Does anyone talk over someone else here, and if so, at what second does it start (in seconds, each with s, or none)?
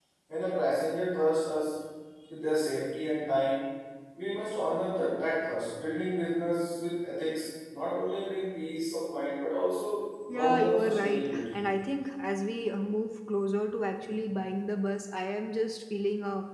10.3 s